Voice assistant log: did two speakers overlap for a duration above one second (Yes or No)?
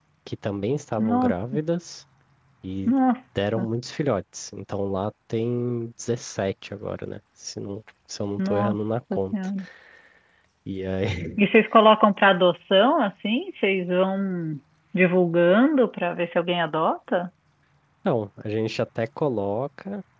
No